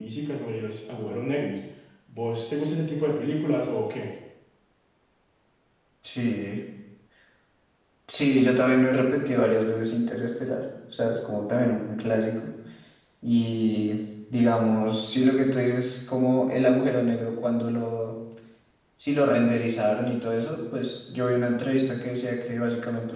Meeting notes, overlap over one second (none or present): none